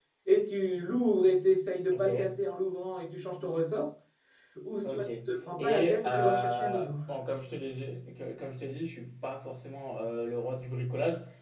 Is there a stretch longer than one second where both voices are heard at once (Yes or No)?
Yes